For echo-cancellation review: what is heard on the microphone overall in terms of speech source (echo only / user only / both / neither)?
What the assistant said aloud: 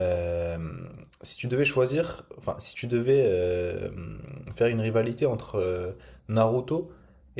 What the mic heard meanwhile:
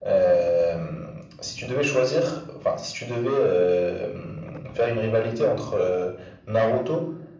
echo only